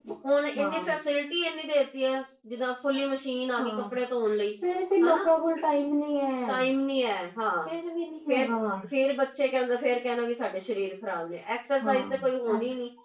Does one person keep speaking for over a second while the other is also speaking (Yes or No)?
No